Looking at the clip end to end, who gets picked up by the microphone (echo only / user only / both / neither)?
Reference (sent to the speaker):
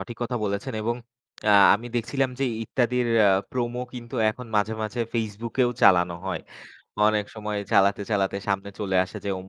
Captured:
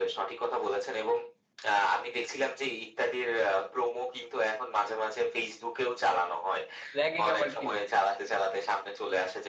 both